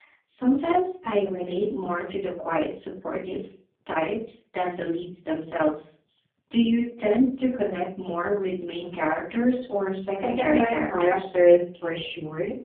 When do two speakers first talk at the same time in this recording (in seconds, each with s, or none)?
10.1 s